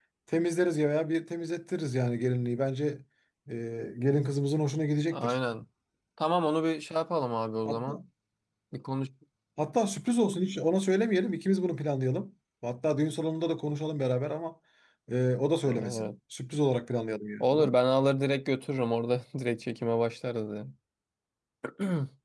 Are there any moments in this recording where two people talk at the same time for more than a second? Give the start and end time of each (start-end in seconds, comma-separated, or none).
none